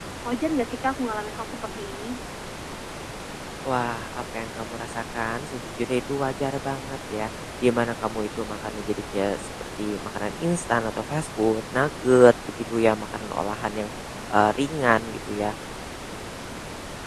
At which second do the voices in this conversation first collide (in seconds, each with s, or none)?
none